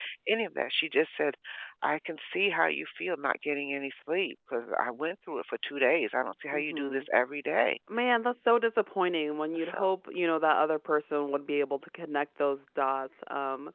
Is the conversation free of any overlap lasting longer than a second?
Yes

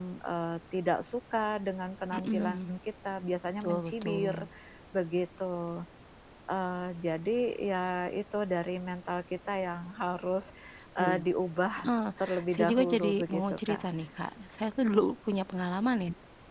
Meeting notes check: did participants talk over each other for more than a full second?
Yes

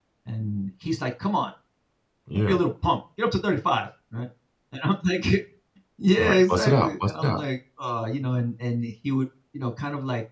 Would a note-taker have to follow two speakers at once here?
Yes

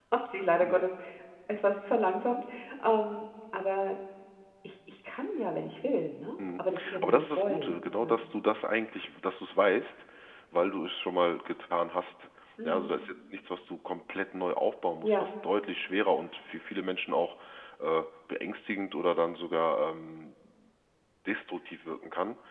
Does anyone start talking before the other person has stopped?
Yes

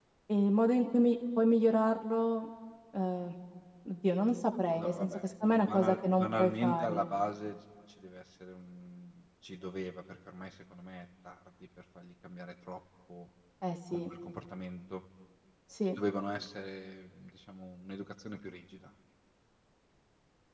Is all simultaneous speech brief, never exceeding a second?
No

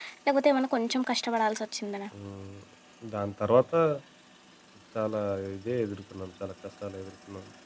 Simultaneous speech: No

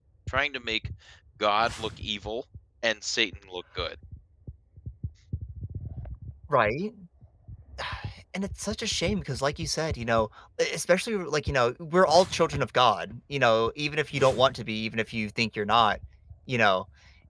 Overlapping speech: No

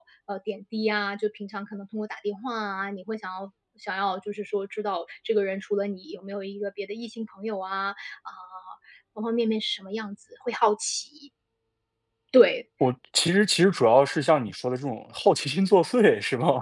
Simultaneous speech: No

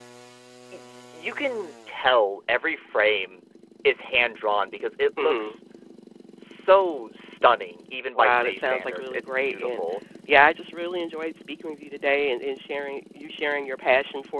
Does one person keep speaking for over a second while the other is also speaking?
Yes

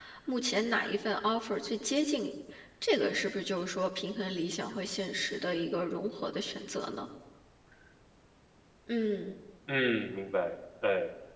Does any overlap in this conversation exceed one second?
No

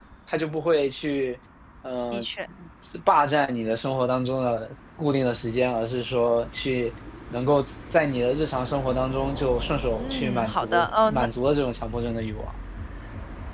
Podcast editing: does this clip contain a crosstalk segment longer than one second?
Yes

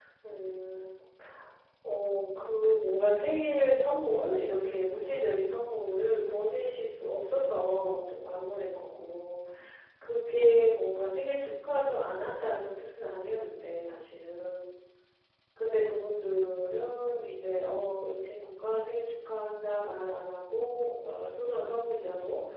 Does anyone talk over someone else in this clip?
No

